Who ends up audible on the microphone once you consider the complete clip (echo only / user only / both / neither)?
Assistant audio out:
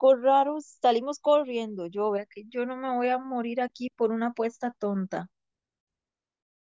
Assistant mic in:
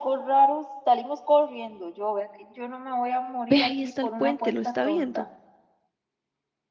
both